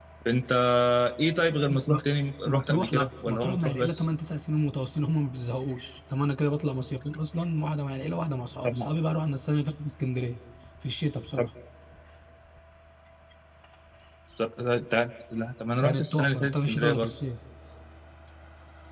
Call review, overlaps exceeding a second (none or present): present